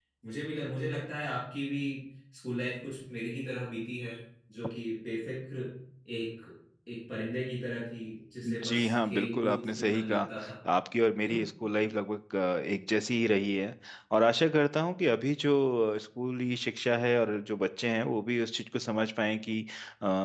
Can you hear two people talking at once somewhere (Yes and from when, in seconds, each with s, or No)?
Yes, from 8.4 s